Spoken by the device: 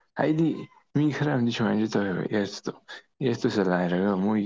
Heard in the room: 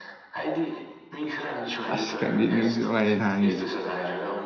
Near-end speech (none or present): present